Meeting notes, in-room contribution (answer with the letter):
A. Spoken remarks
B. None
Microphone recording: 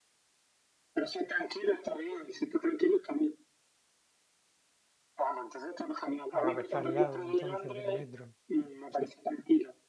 A